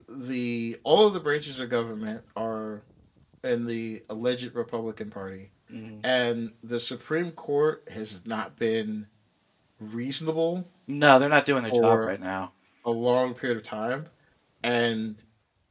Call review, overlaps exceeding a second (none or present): none